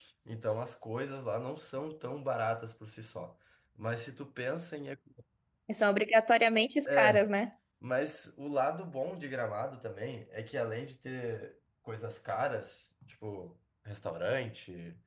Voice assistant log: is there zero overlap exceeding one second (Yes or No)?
Yes